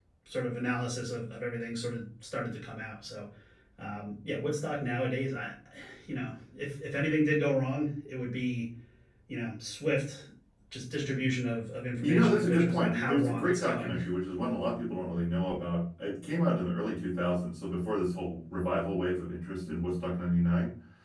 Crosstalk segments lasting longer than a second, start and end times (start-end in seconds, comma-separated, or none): 12.0-13.9